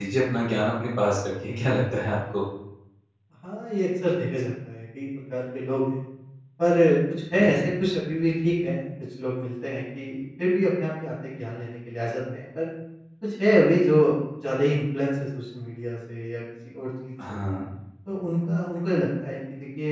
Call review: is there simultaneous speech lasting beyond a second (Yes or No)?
No